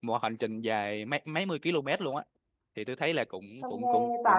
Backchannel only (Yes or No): No